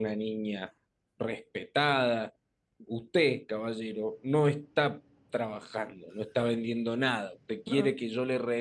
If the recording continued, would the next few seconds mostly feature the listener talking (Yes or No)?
No